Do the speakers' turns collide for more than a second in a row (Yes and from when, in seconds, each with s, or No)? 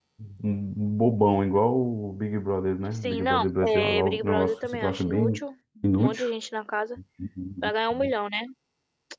Yes, from 2.9 s